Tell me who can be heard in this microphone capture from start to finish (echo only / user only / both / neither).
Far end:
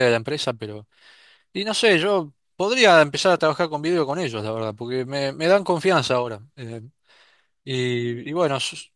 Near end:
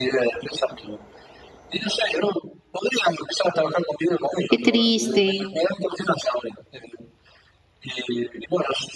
both